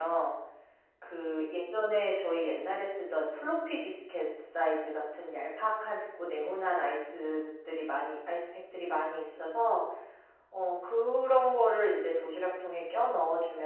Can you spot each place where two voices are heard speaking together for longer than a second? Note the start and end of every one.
none

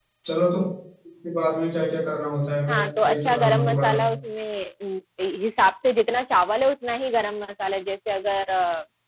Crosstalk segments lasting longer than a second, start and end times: 2.7-4.0

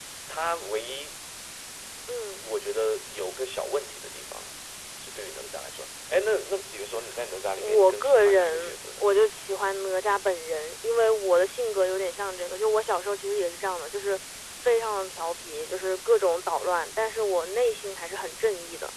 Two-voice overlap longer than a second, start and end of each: 7.6-9.1

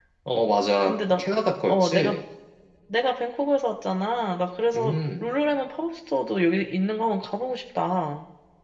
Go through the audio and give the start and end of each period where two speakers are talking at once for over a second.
none

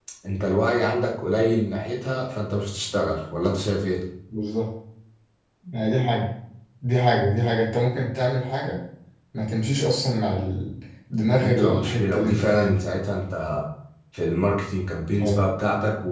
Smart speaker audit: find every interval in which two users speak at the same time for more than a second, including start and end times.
11.3-12.8

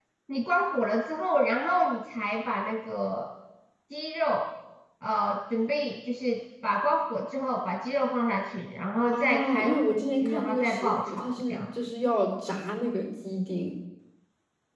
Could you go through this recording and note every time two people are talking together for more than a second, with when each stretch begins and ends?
9.1-11.6

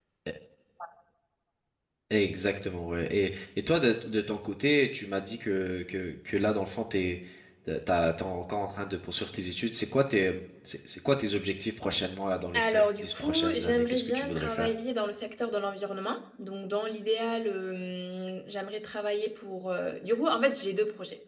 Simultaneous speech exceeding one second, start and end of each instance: 12.5-14.7

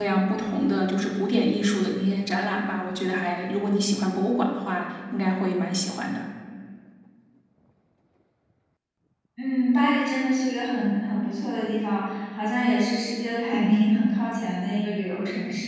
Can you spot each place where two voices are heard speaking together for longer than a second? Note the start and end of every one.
none

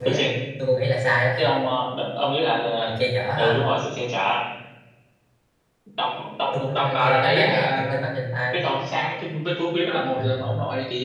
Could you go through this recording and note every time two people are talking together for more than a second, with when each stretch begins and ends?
6.5-7.8

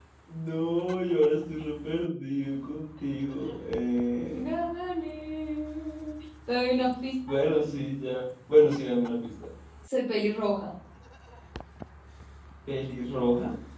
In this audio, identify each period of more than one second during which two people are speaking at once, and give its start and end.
none

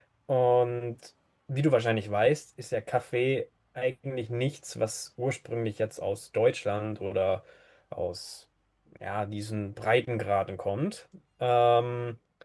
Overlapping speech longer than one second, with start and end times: none

